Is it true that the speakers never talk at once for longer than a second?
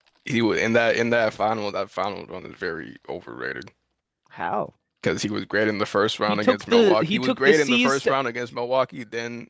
No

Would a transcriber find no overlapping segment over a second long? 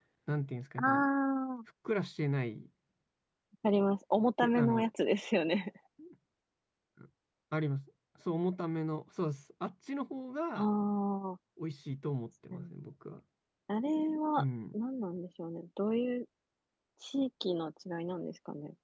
Yes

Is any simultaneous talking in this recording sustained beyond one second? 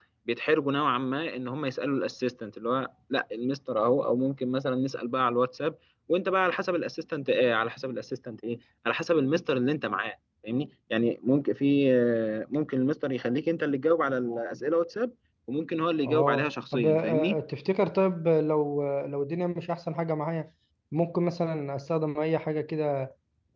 Yes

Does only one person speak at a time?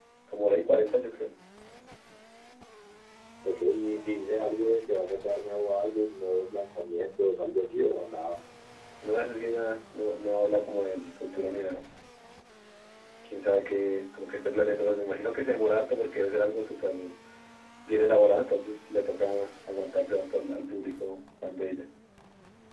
Yes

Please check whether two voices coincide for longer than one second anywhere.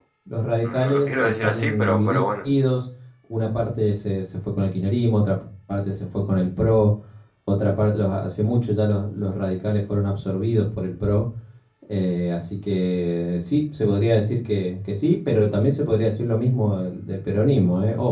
Yes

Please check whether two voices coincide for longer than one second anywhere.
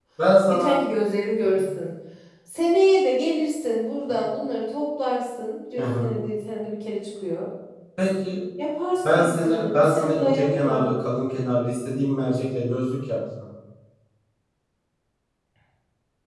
Yes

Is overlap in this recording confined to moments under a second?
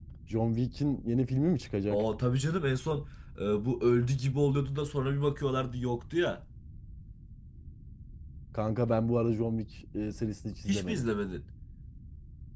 Yes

